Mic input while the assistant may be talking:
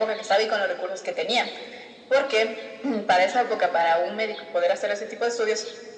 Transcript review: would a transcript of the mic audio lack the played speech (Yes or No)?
No